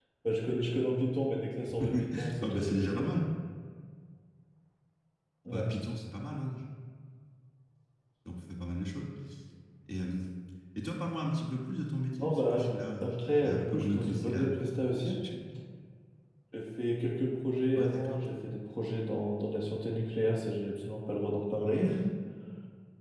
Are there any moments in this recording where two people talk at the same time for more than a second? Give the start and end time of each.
1.8-3.1, 13.0-14.4

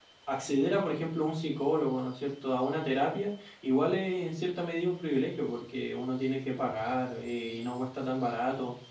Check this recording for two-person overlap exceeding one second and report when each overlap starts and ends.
none

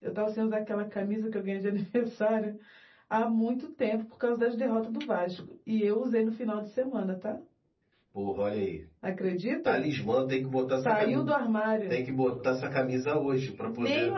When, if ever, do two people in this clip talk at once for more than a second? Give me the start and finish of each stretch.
none

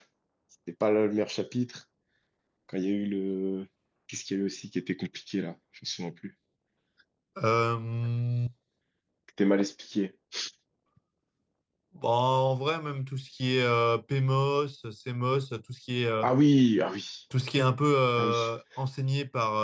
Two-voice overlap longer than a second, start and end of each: none

